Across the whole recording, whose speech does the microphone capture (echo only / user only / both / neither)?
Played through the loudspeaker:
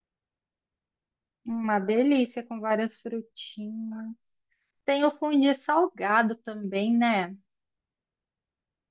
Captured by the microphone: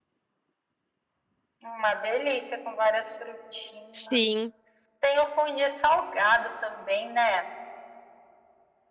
both